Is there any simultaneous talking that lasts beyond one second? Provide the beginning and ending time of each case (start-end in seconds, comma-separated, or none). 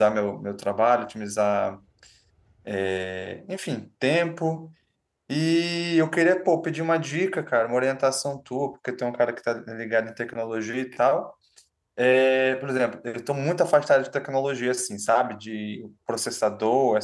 none